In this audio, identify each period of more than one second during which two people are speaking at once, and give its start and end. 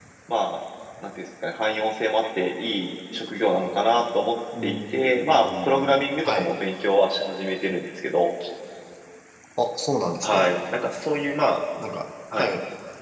4.6-6.5

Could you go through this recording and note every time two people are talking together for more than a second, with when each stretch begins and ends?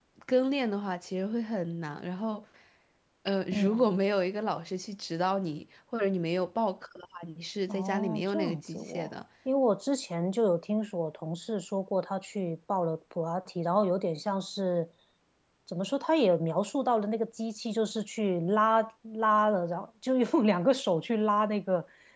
7.7-9.1

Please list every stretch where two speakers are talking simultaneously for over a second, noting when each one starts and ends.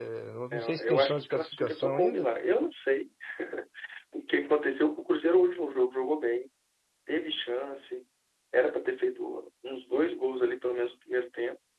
0.5-2.2

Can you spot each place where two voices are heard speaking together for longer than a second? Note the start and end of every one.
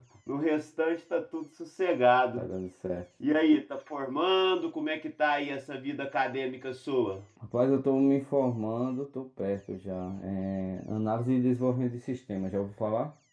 none

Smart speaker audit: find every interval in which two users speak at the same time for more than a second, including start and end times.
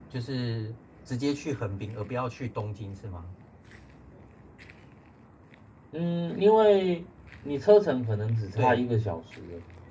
none

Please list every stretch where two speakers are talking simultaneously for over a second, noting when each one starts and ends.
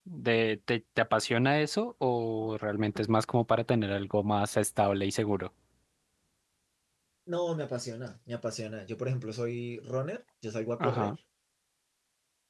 none

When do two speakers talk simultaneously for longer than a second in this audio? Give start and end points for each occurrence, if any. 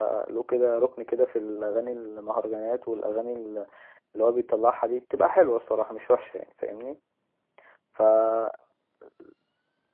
none

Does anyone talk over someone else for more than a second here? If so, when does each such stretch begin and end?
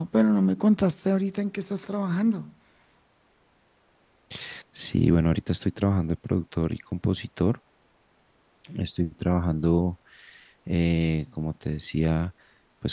none

